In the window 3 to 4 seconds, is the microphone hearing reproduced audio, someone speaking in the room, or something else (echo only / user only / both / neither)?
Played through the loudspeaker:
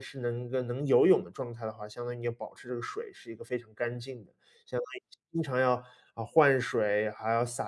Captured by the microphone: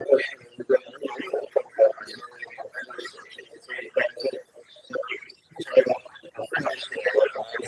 echo only